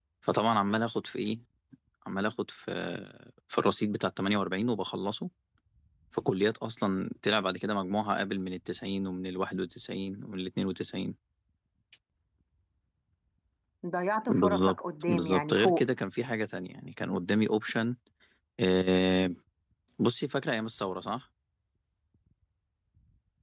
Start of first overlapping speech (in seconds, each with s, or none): 14.3 s